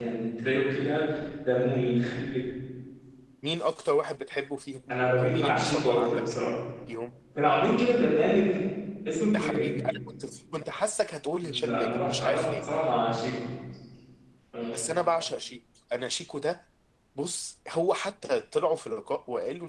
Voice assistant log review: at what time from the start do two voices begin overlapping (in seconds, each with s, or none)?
4.9 s